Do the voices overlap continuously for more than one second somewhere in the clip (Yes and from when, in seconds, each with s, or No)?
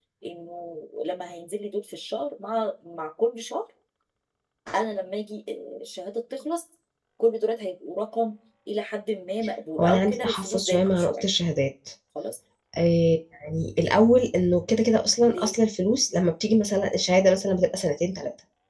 Yes, from 9.8 s